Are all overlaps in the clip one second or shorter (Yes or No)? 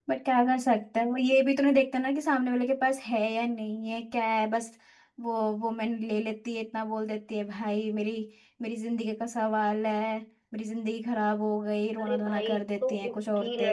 No